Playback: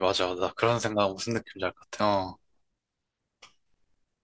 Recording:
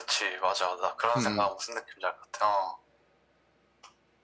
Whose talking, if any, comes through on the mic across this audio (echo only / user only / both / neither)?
both